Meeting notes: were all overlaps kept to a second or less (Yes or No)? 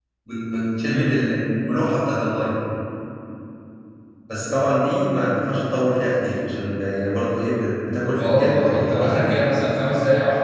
No